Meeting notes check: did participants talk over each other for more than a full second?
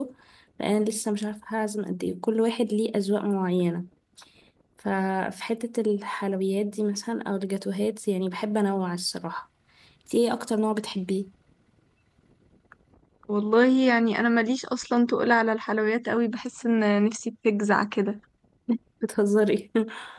No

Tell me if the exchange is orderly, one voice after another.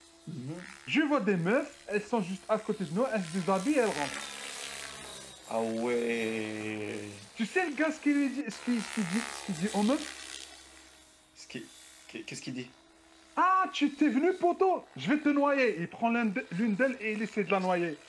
Yes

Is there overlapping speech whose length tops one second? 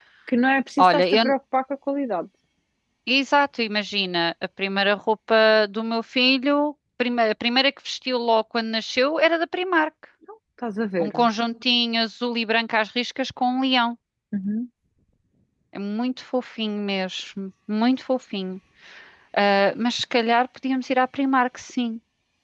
No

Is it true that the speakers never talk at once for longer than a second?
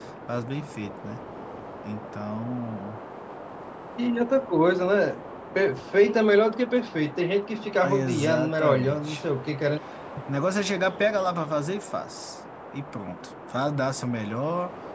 No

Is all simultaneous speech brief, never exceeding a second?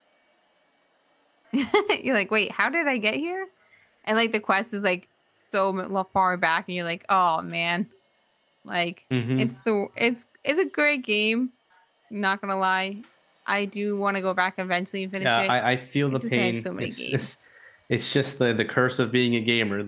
No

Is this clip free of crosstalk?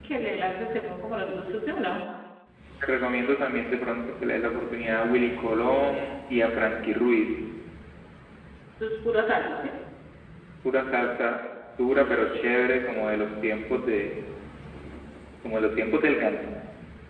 Yes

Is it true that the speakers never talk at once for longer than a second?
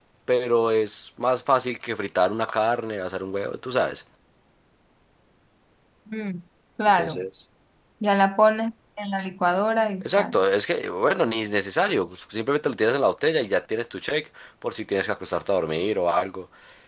Yes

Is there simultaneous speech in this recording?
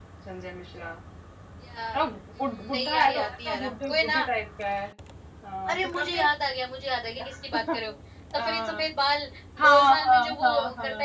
Yes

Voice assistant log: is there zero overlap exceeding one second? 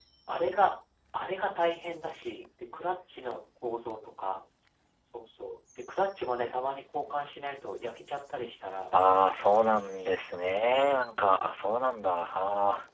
Yes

